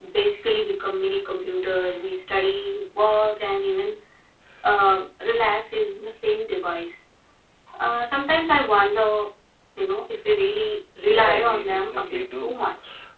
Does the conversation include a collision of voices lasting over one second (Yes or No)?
Yes